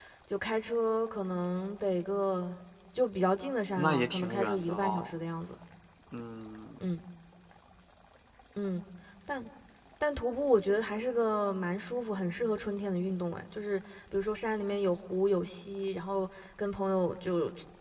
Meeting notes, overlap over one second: present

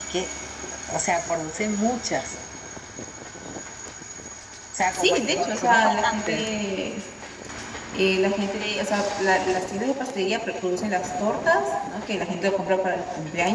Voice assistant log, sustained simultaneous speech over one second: present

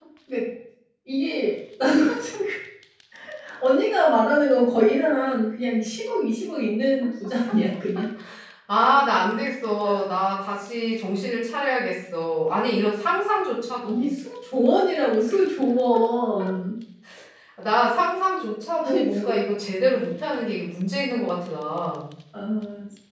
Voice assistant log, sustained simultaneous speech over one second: none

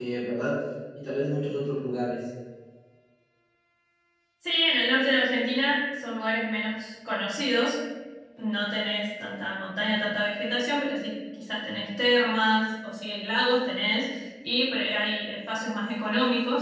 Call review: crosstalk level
none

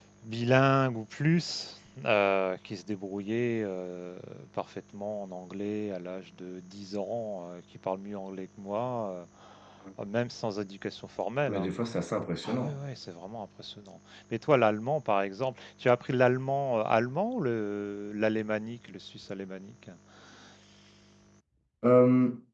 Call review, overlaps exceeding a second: none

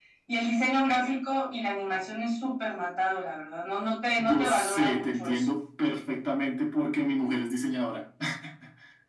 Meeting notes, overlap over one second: present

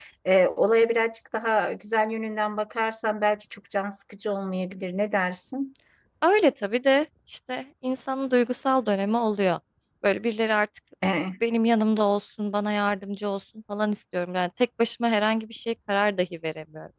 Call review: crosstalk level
none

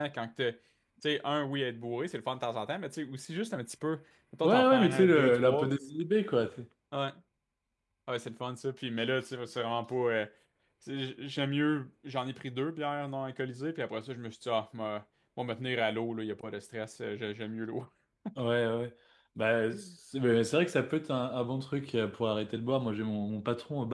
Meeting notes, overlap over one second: present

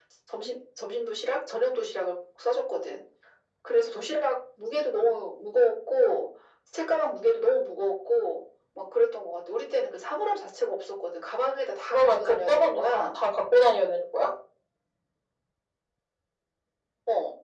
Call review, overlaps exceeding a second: present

